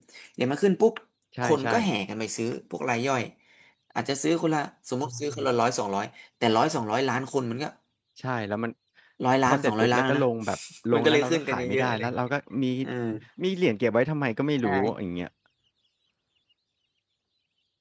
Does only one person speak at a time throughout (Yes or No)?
No